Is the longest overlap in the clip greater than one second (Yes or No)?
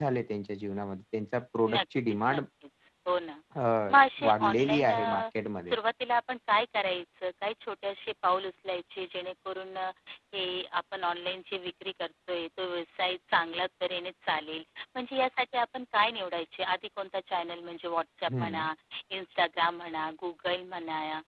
Yes